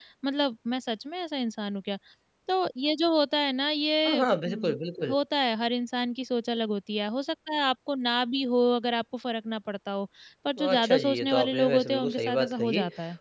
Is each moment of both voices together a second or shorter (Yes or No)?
No